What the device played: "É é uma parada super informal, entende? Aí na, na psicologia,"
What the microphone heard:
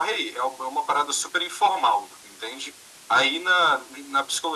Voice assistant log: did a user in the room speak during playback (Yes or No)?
No